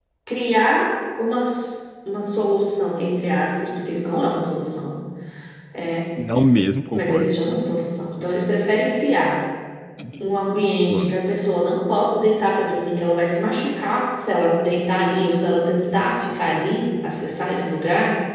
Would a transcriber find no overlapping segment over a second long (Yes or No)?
Yes